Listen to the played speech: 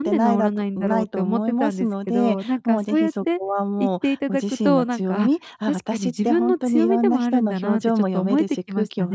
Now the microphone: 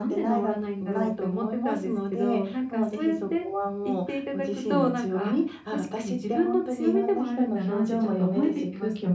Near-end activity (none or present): none